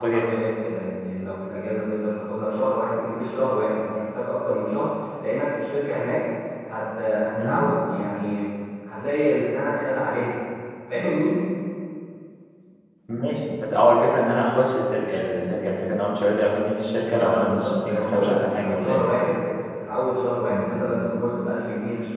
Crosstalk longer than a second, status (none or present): present